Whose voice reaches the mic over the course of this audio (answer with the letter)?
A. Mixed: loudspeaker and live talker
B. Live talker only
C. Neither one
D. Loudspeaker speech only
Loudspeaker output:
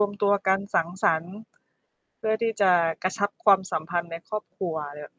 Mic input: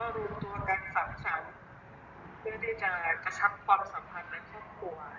D